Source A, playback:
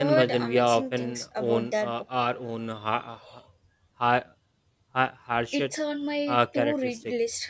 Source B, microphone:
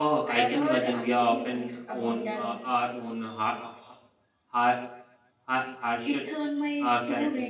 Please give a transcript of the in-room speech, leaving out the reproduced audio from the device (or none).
none